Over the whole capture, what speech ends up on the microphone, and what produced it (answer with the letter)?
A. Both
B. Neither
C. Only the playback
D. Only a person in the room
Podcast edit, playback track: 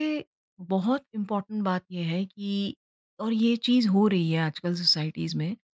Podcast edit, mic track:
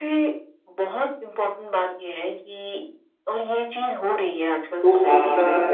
A